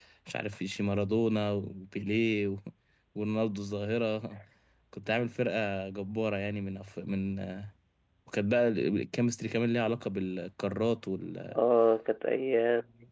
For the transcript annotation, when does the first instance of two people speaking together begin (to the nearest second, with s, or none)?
none